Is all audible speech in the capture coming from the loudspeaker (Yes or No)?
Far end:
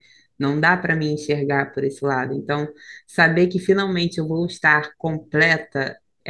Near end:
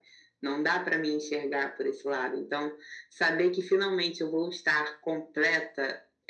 Yes